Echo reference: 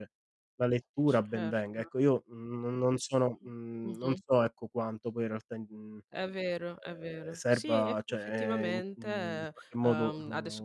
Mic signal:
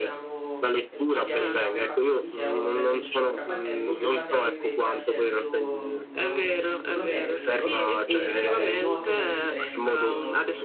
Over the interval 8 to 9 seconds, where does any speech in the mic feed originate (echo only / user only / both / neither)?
both